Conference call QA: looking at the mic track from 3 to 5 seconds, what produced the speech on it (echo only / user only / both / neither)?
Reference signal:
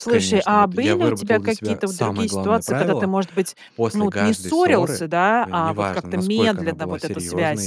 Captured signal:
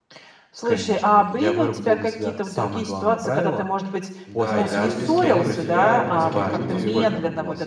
both